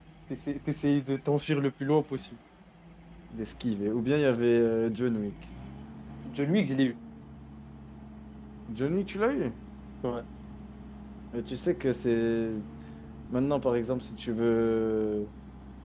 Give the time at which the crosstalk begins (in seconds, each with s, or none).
none